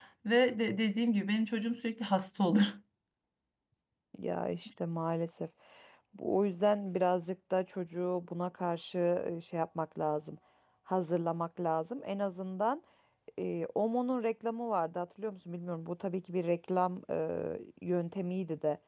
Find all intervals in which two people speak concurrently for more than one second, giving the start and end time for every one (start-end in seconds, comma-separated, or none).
none